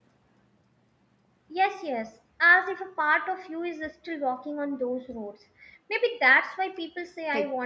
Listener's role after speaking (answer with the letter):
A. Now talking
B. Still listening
B